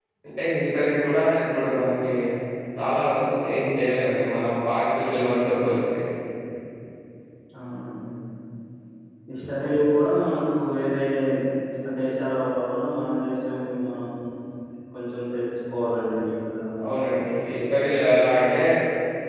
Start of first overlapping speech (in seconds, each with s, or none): none